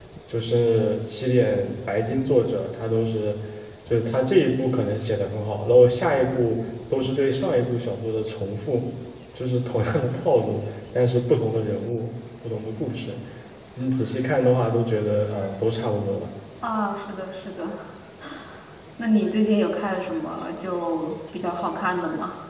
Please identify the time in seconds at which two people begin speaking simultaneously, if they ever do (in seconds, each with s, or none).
none